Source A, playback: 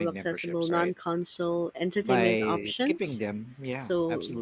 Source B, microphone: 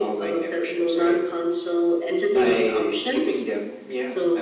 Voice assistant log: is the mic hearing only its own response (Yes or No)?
Yes